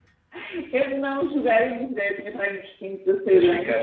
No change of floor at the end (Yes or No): No